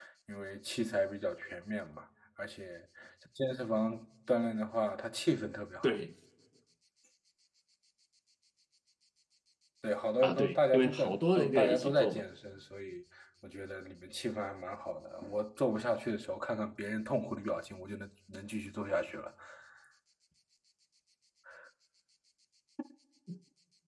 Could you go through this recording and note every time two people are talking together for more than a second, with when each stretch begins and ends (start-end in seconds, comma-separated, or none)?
10.2-12.2